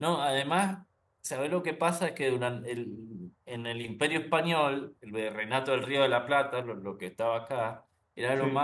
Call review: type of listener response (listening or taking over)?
listening